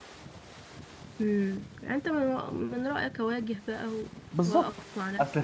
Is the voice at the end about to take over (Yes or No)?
Yes